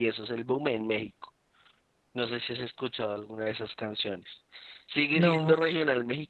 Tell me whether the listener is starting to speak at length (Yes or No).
No